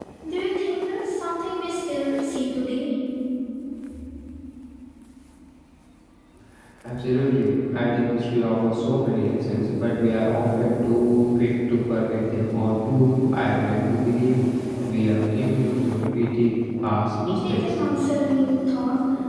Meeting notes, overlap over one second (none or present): none